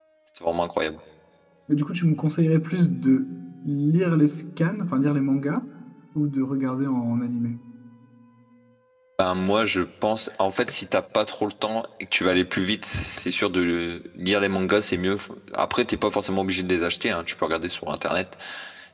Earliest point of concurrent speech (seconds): none

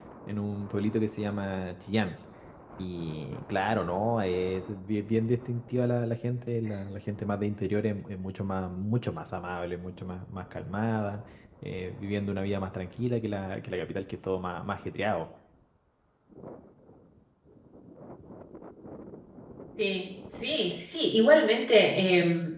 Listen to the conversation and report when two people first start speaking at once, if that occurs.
none

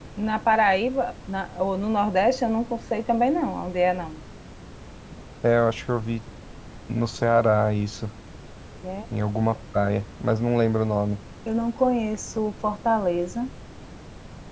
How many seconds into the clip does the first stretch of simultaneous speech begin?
none

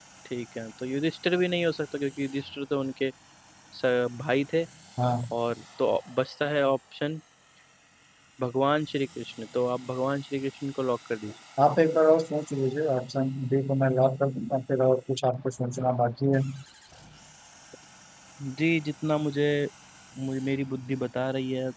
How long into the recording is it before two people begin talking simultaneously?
none

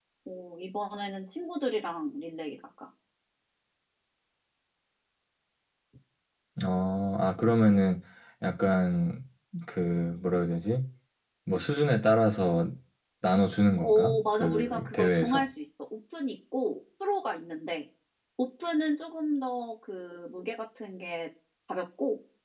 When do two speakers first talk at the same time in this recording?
13.8 s

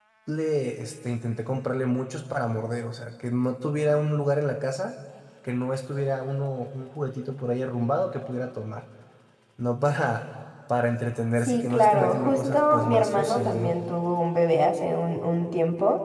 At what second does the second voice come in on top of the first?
11.4 s

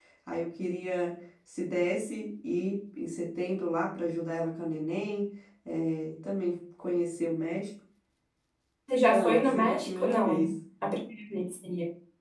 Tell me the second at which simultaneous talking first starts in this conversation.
9.0 s

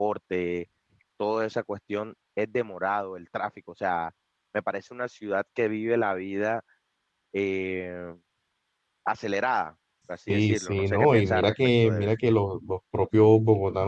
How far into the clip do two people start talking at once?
10.3 s

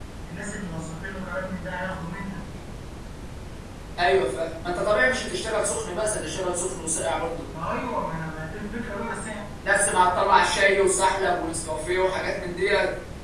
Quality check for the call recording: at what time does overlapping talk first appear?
none

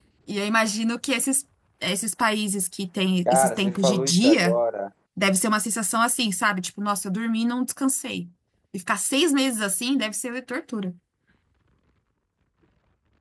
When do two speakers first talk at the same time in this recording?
3.3 s

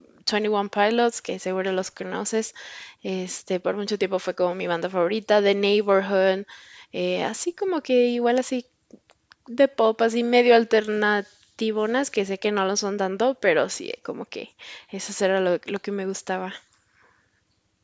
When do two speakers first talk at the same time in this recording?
none

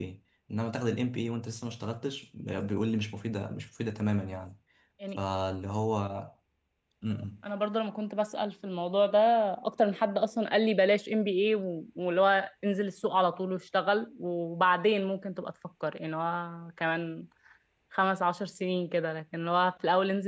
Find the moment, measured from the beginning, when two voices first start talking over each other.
none

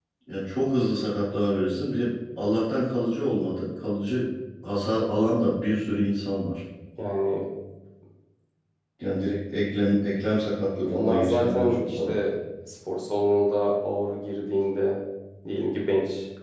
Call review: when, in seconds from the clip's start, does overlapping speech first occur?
10.9 s

